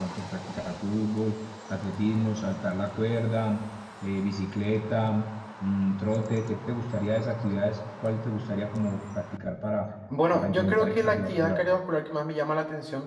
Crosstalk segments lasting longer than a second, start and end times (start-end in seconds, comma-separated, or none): 10.3-11.6